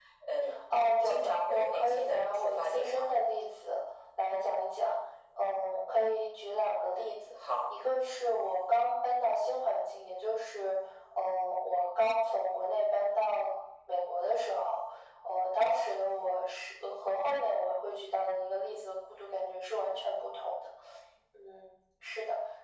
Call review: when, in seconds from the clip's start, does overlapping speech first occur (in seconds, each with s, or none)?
1.0 s